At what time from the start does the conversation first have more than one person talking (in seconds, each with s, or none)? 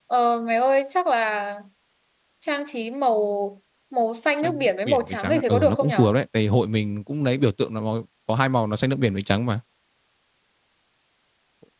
4.4 s